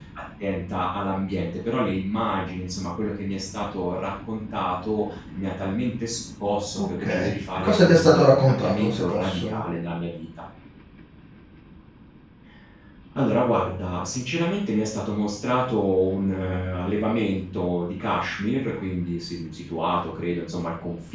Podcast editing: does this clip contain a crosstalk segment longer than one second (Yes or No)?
Yes